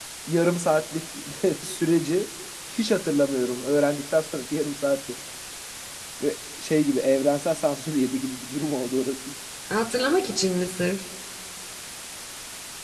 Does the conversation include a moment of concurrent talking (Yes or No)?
No